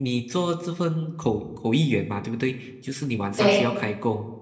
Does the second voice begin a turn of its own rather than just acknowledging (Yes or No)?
No